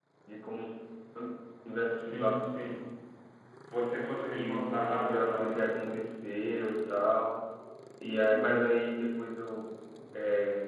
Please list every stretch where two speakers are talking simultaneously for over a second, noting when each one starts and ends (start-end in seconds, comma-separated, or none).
4.3-5.6